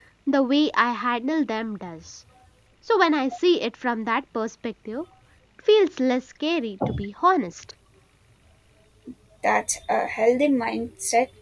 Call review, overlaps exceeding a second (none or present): none